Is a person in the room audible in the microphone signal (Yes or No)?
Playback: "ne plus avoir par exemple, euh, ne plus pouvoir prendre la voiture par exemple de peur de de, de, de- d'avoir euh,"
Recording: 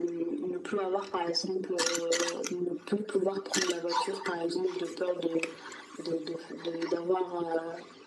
No